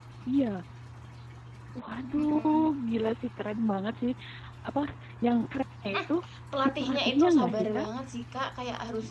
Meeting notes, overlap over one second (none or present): present